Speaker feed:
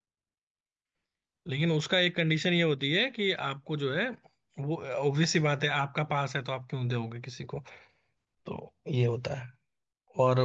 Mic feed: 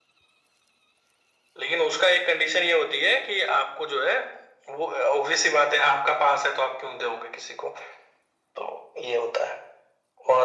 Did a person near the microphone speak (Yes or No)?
No